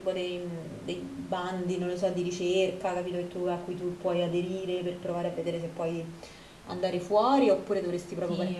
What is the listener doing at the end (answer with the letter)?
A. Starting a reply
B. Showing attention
B